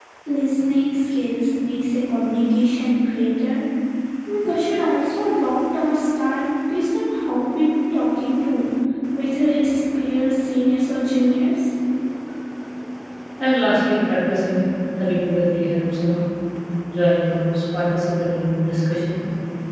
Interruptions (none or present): none